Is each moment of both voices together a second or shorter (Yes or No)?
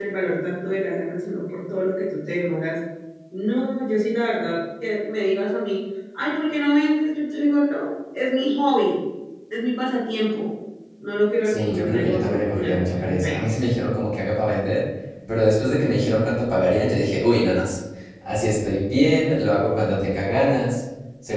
No